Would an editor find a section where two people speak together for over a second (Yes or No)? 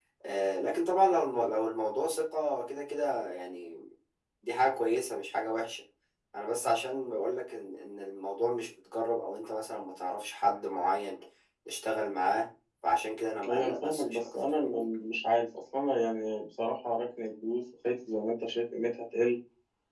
Yes